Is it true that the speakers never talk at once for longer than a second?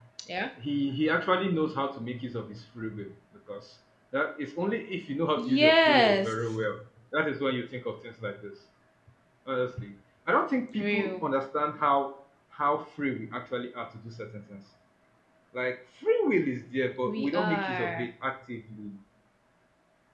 No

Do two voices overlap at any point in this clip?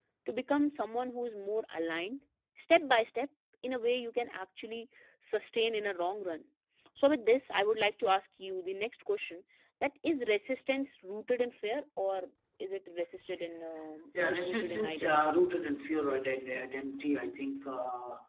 Yes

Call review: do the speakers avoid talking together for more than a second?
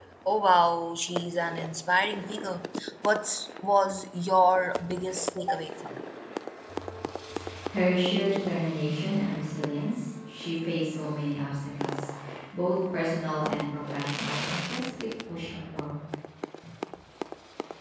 Yes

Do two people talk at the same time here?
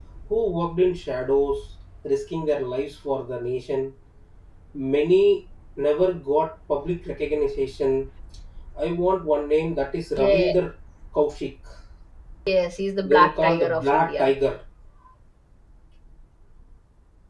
Yes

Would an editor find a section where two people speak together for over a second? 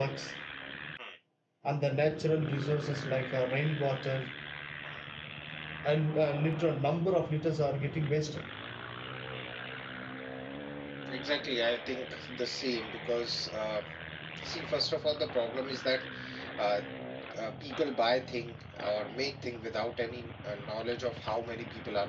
No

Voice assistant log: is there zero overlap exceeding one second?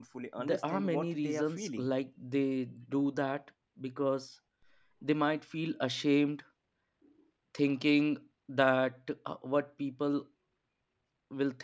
No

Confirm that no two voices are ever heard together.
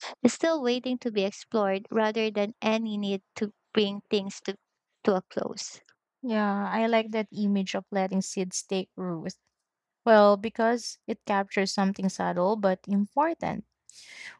Yes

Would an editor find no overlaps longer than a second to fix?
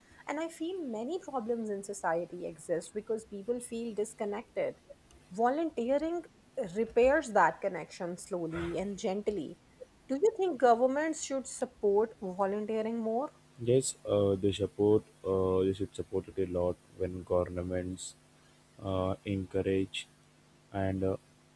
Yes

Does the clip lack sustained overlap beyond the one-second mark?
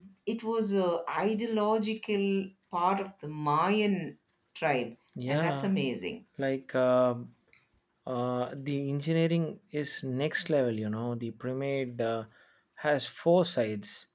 Yes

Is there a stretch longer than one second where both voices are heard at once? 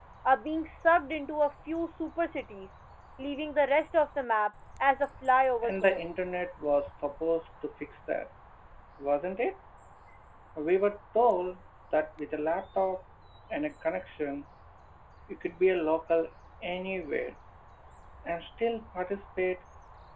No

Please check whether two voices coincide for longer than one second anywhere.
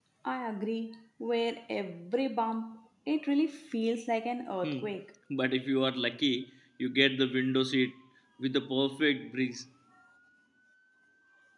No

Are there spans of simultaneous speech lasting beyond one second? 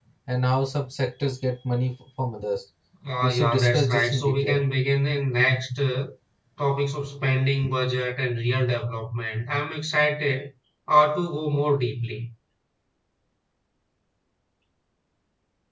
Yes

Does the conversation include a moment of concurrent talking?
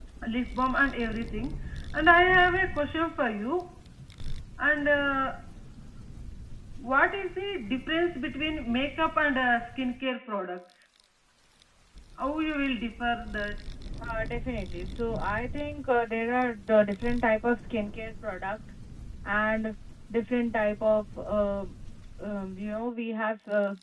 No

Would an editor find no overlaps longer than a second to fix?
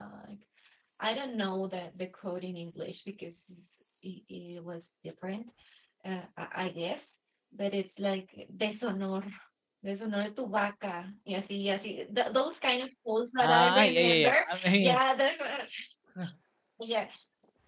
No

